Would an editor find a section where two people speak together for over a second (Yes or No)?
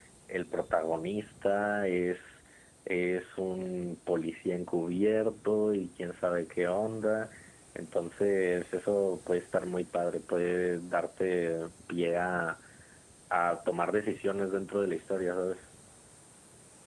No